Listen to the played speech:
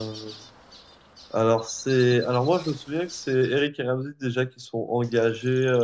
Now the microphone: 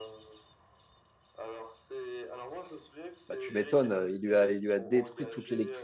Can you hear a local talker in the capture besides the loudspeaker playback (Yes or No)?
Yes